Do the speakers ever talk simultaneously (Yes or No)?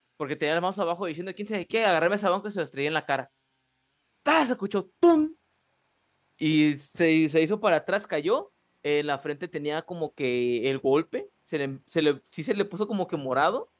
No